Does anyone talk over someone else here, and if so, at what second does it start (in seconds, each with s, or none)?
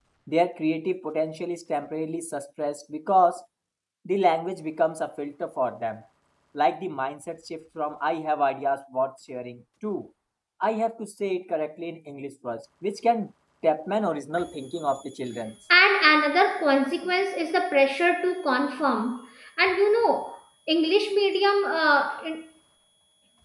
none